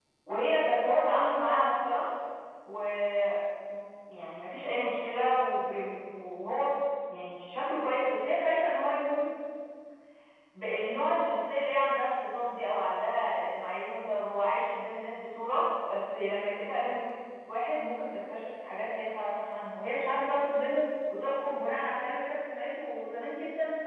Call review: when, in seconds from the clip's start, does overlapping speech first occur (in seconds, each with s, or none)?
none